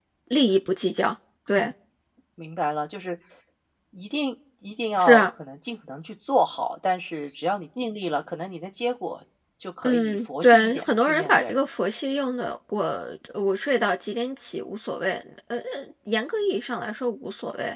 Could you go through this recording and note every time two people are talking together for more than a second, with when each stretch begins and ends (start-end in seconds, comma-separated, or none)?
9.8-11.6